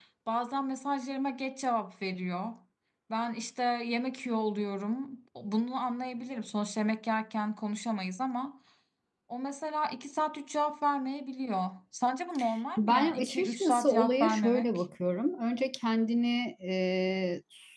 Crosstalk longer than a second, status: present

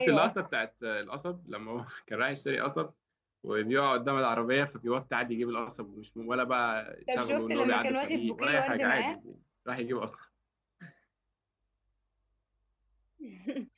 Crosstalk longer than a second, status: present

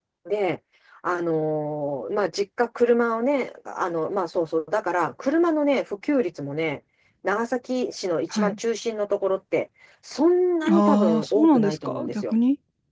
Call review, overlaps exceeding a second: present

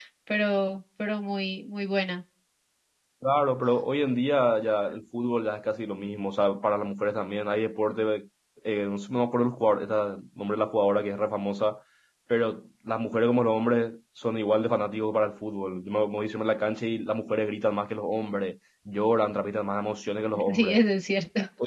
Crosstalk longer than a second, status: none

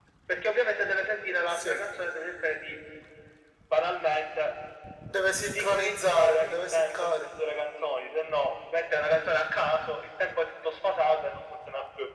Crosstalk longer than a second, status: present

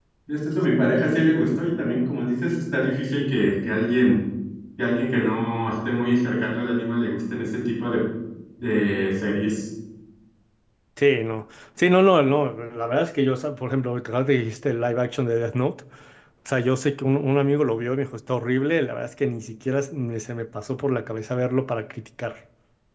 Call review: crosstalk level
none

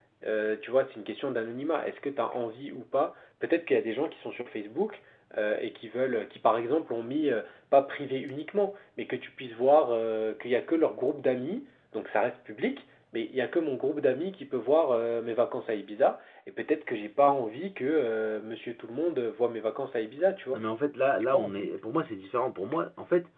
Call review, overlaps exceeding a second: none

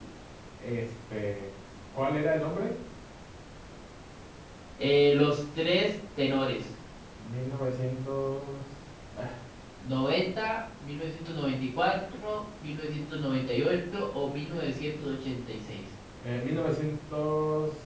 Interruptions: none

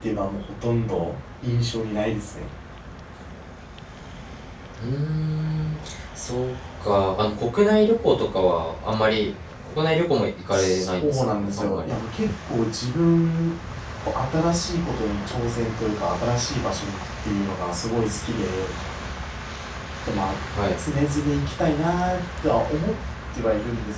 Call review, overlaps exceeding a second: present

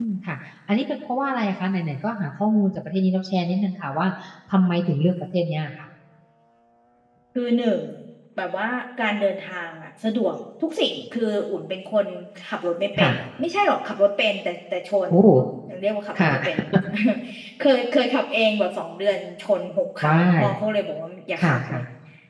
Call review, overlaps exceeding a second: none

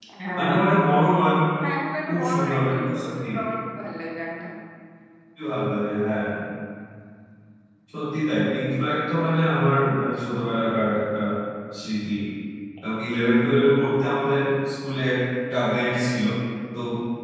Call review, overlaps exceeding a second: present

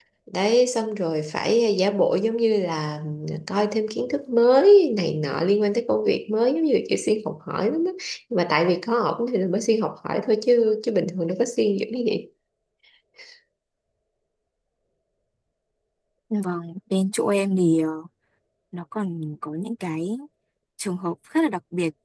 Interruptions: none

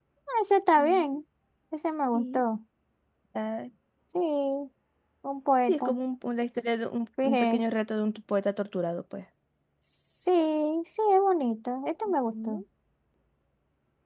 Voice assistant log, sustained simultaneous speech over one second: none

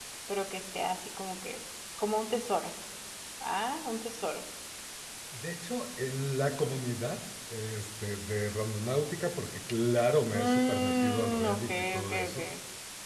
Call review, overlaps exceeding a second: present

